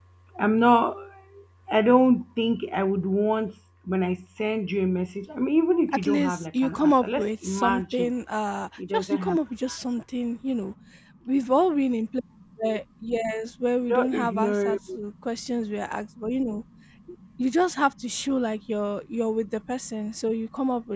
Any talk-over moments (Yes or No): Yes